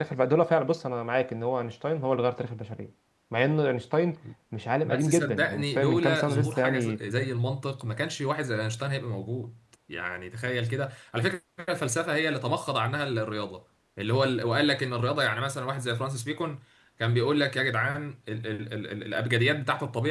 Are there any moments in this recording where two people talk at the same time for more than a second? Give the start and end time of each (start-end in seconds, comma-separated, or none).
4.8-7.0